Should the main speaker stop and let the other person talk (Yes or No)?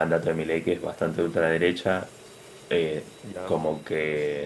No